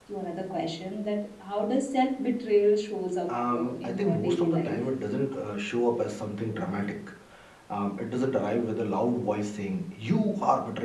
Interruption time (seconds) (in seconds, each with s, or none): 3.3 s